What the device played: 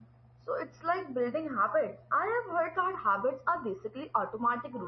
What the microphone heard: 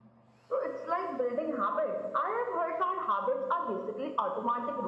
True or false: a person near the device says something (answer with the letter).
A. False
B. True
A